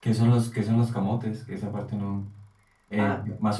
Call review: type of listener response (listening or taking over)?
taking over